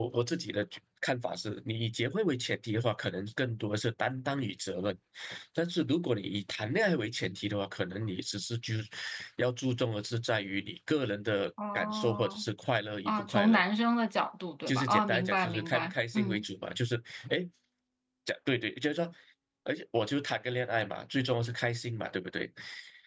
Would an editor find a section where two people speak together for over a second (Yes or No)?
Yes